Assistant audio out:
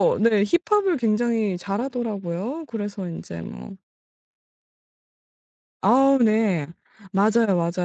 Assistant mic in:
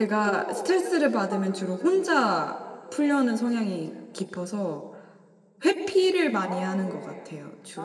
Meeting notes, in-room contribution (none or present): present